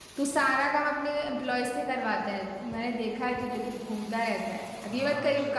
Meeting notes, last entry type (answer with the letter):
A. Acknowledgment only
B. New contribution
B